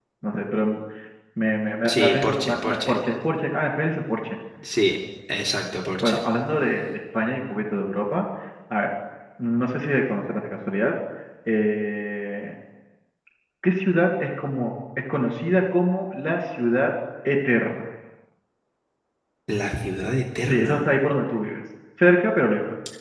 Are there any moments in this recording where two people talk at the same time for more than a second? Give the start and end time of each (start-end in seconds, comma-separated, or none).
1.8-3.0